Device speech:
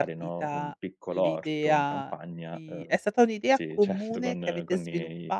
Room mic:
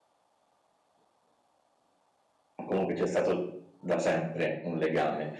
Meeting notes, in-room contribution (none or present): present